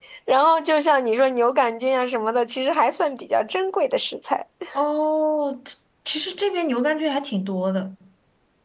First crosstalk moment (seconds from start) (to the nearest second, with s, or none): none